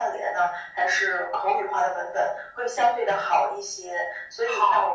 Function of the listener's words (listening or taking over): listening